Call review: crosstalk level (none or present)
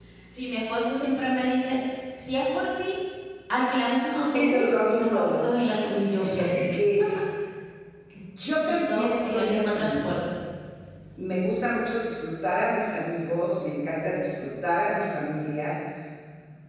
present